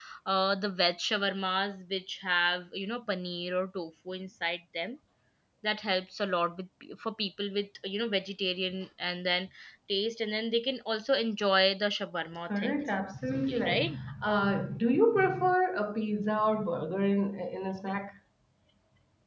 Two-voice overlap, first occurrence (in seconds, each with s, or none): 12.5 s